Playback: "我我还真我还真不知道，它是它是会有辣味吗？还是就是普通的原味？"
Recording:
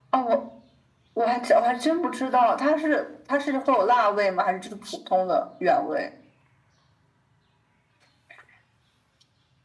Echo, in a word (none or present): present